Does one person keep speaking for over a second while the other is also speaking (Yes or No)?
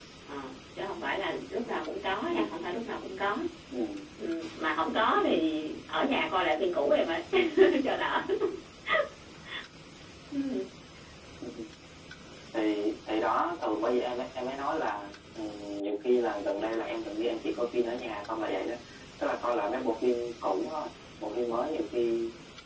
No